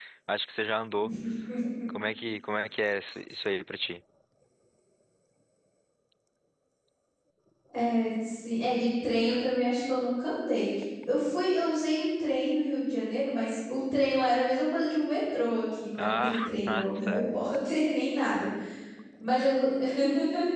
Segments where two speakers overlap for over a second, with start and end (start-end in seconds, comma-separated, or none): 16.0-17.2